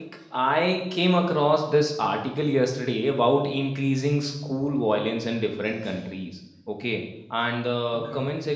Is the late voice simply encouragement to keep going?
Yes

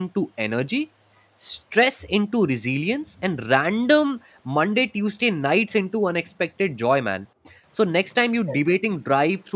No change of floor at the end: Yes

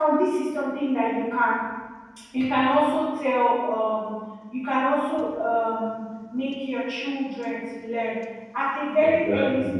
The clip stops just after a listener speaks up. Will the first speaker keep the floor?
Yes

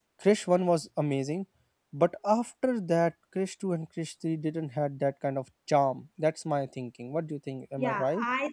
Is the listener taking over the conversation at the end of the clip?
Yes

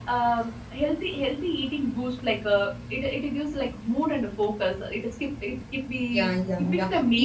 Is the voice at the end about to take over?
Yes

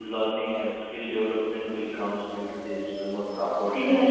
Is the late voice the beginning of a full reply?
No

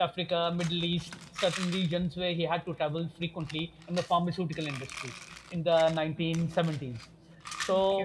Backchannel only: Yes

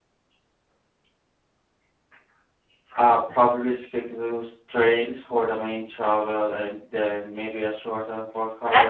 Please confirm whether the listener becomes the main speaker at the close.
Yes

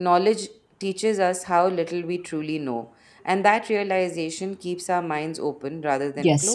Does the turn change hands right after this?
Yes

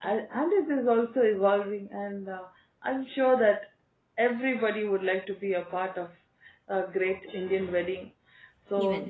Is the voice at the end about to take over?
No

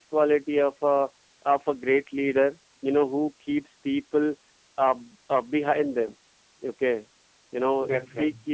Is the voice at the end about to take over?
No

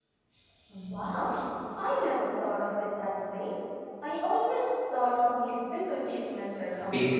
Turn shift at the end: Yes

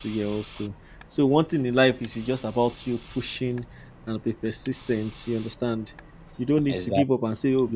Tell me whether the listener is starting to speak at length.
No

